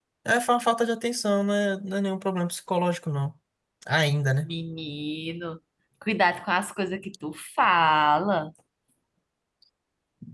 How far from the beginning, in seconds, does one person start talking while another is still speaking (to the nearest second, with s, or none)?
none